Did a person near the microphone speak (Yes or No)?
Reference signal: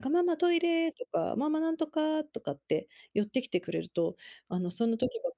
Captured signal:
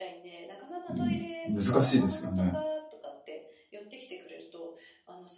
Yes